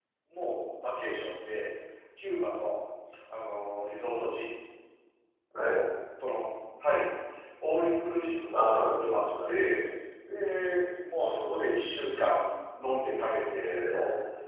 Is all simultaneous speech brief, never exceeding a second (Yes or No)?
No